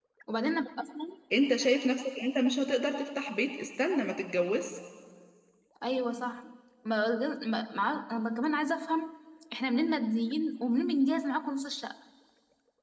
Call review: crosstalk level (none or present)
none